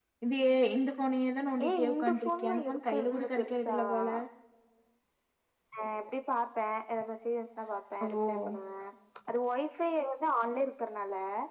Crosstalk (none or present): present